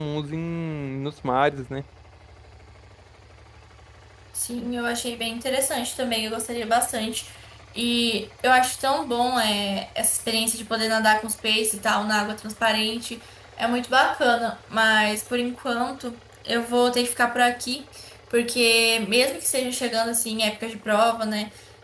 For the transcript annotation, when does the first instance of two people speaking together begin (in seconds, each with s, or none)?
none